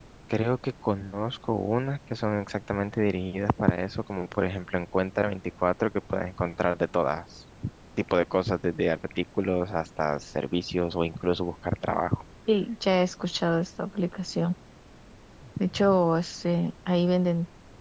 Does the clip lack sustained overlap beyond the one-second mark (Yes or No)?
Yes